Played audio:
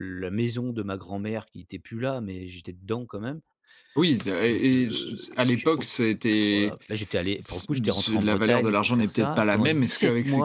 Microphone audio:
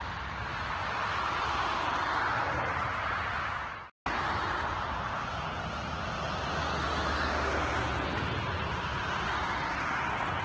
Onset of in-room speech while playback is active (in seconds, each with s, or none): none